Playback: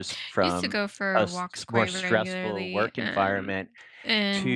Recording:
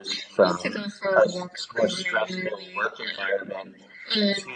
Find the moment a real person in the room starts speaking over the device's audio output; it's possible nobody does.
none

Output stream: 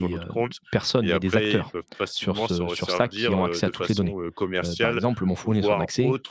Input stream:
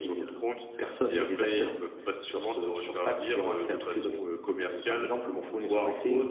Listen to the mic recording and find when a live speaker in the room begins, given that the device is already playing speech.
none

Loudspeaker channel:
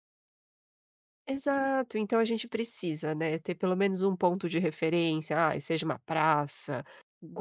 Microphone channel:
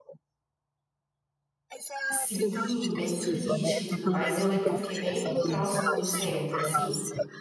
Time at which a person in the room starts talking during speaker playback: 2.1 s

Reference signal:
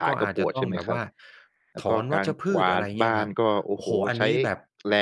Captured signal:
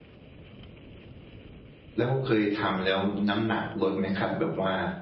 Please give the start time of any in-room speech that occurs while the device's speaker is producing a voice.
2.0 s

